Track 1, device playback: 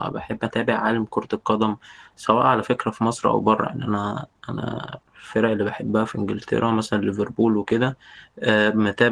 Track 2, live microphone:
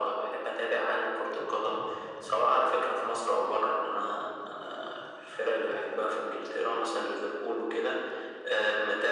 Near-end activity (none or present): none